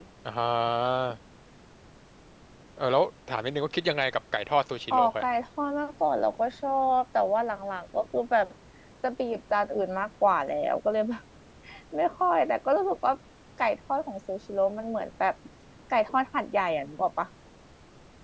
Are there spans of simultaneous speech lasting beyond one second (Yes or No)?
No